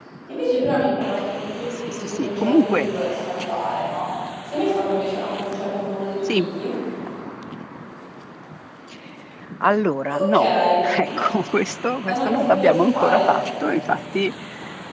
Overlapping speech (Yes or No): Yes